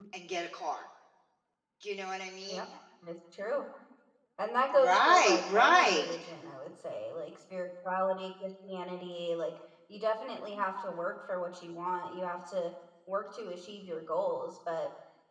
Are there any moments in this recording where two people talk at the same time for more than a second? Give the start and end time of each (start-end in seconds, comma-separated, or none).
4.7-6.0